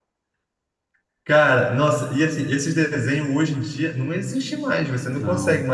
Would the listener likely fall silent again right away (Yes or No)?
Yes